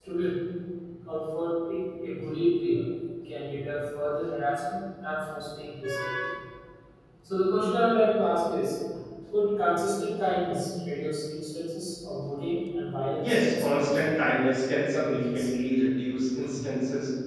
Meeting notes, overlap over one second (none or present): present